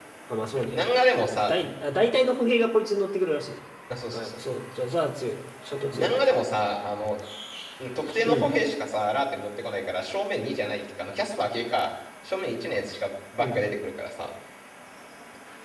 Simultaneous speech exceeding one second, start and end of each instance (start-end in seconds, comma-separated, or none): none